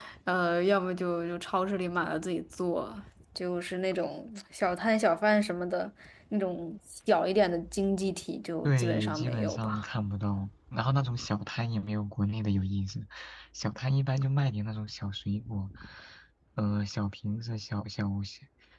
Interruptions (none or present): present